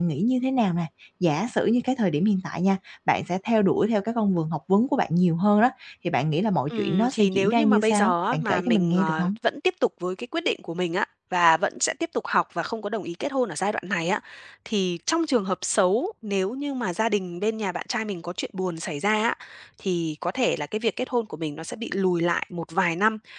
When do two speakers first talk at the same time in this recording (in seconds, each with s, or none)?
6.7 s